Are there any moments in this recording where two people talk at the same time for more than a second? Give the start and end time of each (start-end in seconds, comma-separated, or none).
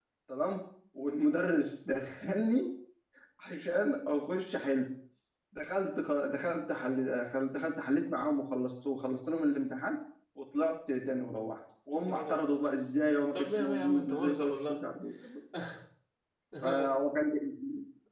13.3-14.8